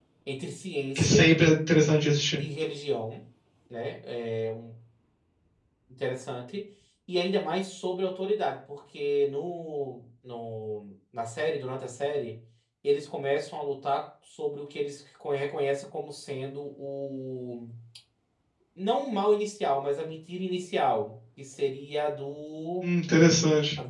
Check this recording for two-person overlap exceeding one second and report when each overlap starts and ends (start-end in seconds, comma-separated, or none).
none